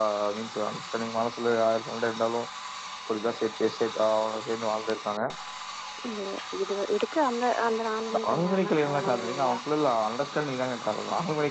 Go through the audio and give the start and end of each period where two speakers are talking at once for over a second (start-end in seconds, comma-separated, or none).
8.1-9.6